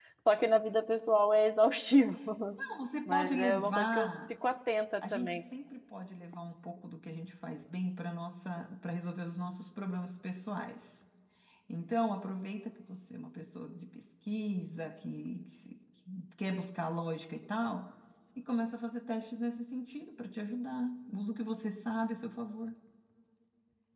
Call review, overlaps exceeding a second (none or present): present